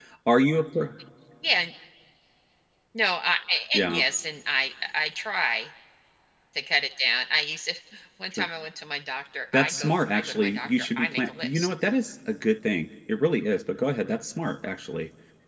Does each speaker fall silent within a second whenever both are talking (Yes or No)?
No